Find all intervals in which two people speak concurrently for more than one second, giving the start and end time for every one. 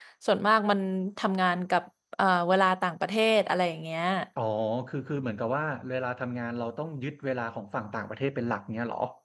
none

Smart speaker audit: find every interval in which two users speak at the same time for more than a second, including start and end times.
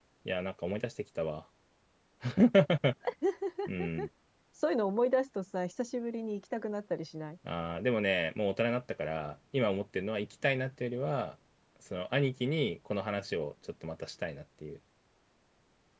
none

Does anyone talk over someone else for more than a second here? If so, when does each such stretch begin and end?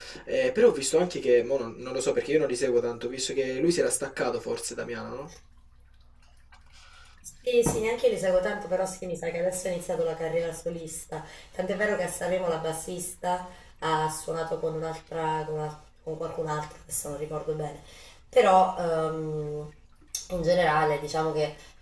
none

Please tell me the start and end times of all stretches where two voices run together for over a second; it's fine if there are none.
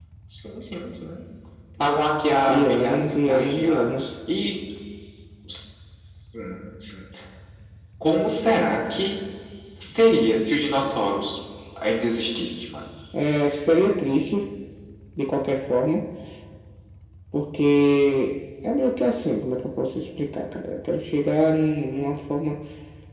2.5-4.0

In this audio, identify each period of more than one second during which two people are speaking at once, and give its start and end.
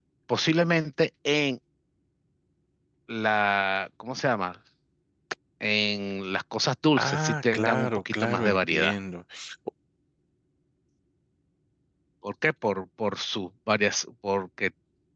7.0-8.9

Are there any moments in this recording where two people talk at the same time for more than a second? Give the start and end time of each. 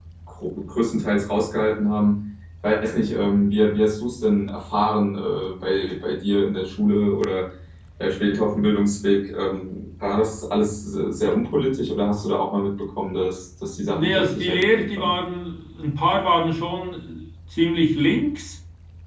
13.9-15.1

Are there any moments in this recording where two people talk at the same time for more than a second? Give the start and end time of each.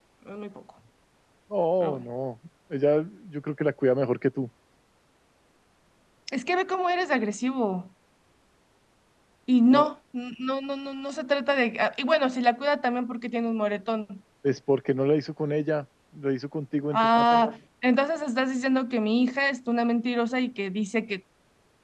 none

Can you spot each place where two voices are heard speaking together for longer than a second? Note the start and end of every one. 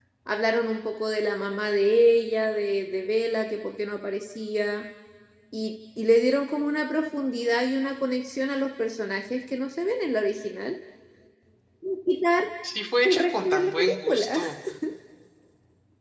13.1-14.4

